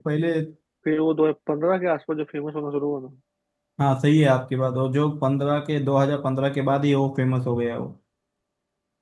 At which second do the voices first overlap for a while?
none

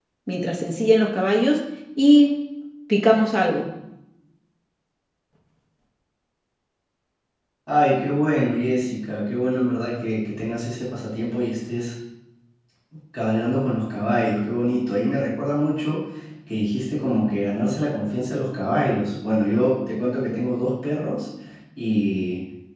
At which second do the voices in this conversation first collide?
none

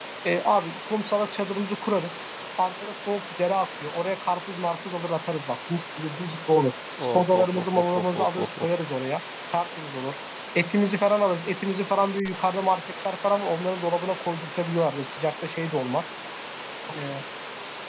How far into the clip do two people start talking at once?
7.0 s

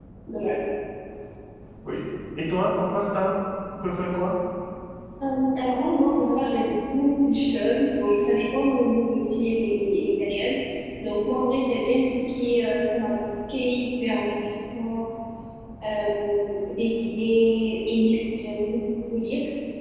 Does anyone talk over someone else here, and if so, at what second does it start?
none

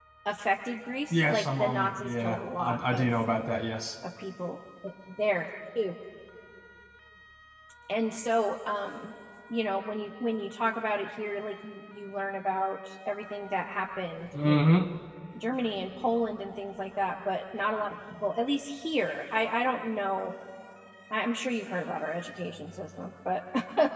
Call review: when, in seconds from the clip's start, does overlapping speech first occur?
1.1 s

